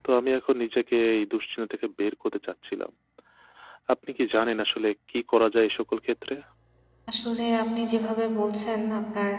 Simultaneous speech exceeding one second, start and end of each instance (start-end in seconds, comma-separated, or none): none